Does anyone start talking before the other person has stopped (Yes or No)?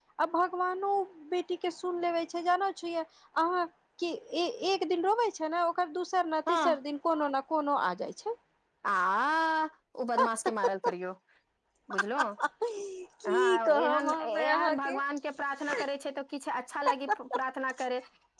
Yes